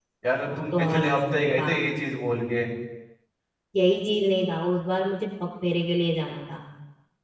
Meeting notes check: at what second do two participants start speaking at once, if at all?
0.6 s

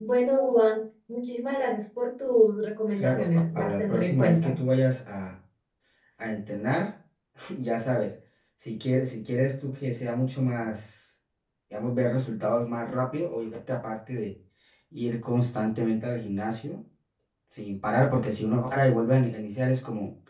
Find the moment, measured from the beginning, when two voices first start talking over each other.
3.0 s

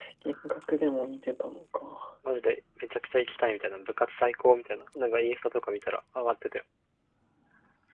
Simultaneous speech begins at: none

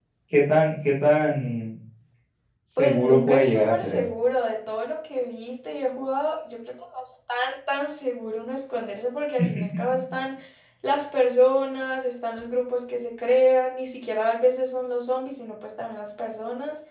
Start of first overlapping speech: 2.8 s

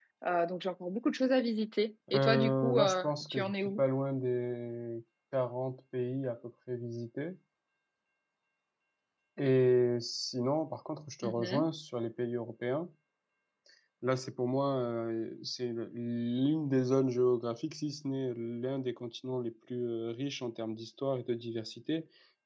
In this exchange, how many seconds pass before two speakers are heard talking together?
2.1 s

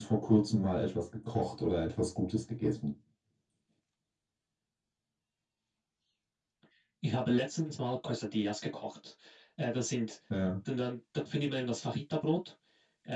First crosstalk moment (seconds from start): none

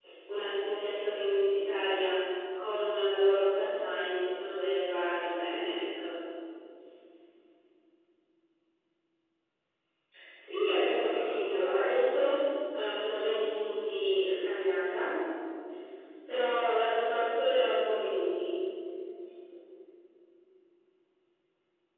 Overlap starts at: 10.6 s

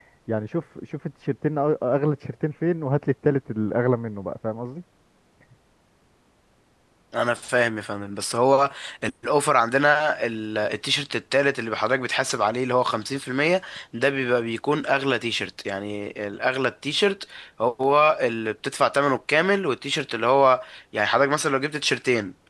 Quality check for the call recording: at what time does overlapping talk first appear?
none

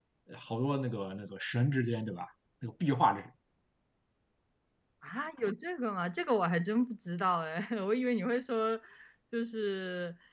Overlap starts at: none

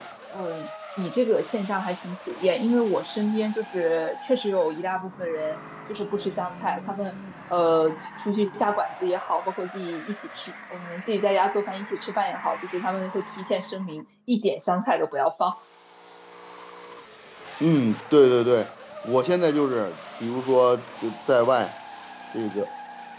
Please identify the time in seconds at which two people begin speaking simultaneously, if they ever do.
none

